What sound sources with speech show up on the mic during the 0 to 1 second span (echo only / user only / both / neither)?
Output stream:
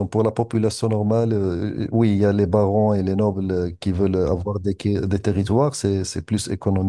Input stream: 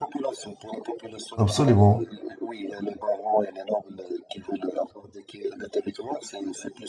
echo only